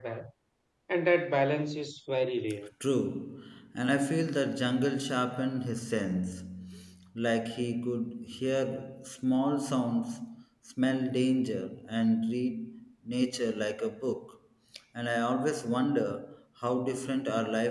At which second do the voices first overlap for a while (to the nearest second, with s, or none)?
none